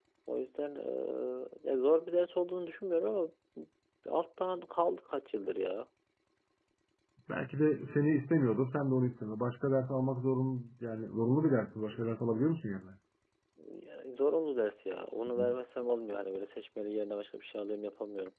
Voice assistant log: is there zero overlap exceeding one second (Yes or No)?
Yes